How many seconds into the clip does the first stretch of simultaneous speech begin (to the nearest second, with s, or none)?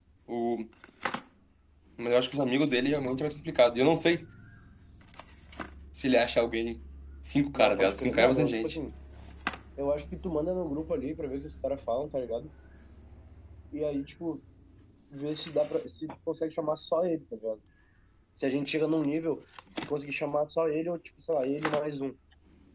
8 s